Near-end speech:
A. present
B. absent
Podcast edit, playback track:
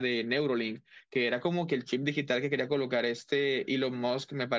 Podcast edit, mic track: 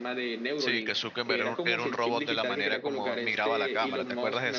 A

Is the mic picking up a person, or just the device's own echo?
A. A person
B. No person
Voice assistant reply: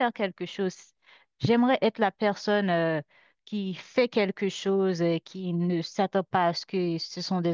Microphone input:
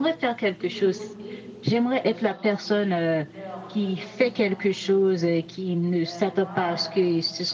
A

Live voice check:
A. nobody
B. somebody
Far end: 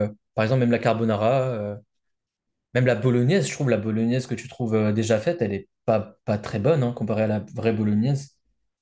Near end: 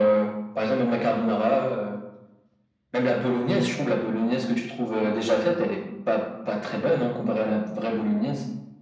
A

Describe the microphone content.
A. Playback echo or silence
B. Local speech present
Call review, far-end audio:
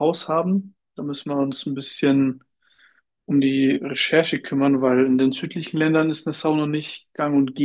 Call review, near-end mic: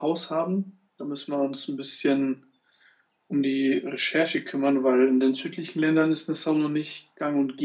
A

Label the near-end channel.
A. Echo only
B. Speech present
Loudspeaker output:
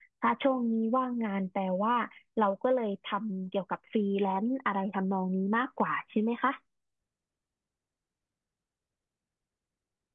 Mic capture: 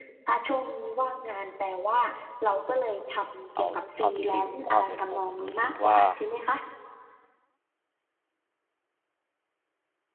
B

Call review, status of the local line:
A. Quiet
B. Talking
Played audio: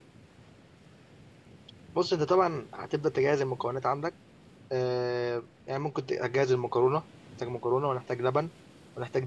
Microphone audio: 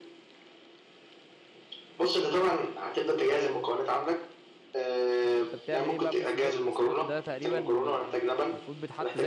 B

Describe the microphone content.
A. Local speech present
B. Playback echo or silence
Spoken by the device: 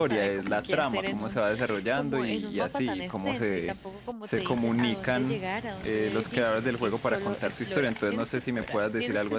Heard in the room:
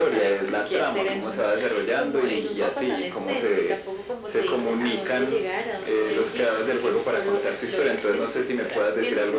B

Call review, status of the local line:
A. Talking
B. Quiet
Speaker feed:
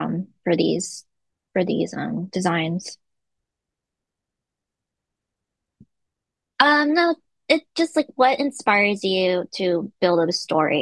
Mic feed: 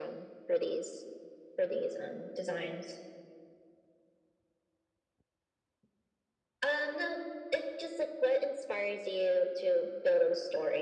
B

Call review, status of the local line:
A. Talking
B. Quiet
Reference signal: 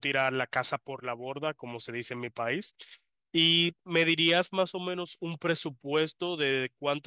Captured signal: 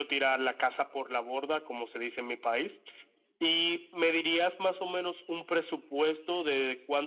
B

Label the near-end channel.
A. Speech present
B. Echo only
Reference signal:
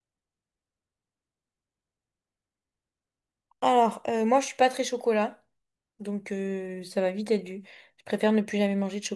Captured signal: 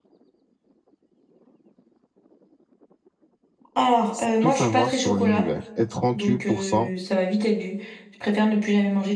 A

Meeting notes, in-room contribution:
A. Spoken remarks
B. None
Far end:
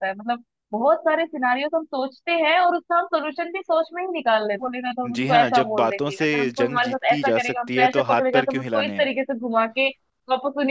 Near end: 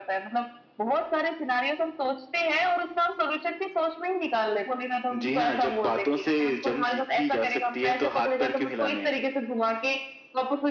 B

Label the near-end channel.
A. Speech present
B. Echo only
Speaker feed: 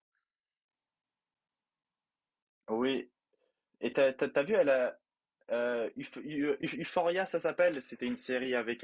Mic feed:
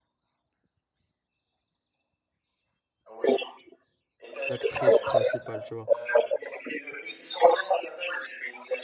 A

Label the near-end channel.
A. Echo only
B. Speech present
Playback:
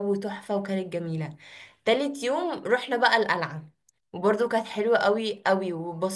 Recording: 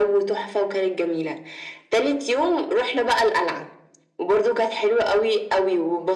A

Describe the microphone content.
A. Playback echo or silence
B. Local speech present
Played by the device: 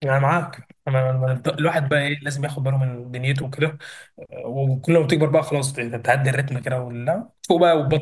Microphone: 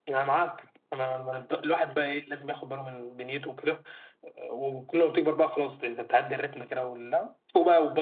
A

